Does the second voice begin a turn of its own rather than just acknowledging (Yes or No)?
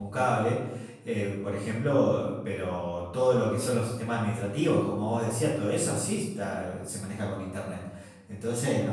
Yes